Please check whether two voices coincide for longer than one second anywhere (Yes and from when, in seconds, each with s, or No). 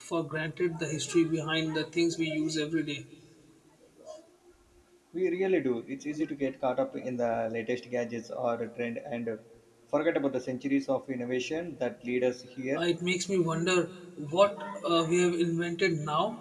No